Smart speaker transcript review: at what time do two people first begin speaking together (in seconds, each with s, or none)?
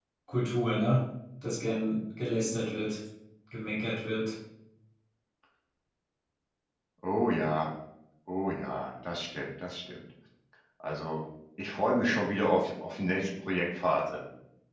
none